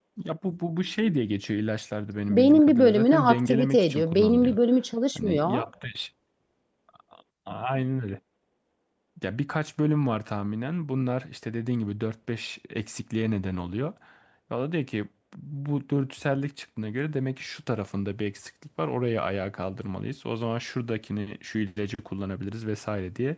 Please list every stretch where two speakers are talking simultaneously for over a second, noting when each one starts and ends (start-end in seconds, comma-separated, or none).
2.3-4.6